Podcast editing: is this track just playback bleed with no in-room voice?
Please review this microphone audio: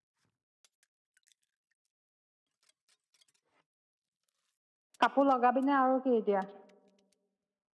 No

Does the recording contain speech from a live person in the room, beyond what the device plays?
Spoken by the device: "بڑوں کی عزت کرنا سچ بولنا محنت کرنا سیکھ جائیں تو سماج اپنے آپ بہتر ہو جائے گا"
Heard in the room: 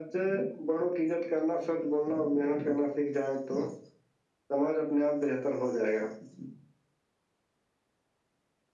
No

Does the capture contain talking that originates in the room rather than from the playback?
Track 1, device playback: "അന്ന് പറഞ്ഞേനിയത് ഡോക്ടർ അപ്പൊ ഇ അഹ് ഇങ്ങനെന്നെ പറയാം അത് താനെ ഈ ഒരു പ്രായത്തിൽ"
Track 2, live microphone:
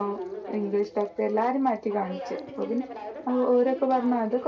Yes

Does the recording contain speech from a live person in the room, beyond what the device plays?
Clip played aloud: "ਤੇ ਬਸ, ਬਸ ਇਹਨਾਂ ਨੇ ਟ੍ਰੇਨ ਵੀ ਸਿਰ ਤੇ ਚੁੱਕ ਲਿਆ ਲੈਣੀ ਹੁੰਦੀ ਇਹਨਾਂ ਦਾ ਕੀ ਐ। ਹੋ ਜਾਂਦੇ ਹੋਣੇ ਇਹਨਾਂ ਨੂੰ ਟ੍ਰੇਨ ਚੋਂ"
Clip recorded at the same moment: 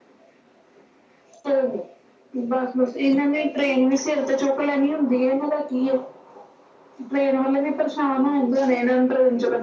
No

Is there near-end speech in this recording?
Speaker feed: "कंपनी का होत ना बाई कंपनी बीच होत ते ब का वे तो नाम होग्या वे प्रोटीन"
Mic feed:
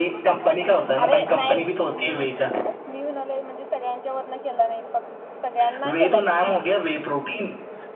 Yes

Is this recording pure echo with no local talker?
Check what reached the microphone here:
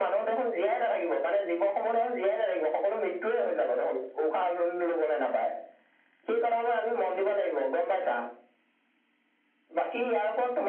Yes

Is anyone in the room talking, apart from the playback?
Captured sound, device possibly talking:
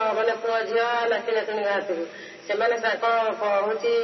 No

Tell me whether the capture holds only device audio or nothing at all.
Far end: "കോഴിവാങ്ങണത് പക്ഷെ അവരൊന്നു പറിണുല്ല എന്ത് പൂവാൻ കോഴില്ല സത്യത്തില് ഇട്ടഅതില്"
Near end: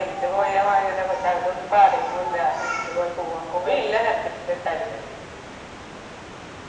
Yes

